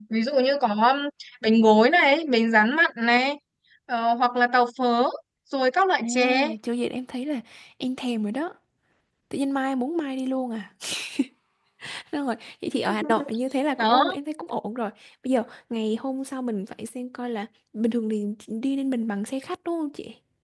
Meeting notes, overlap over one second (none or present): none